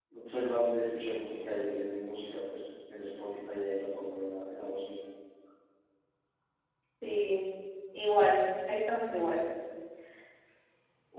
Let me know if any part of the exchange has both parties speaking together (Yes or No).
No